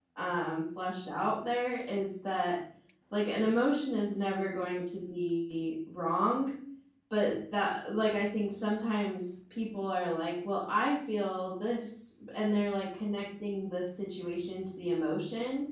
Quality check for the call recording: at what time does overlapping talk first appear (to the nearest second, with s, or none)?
none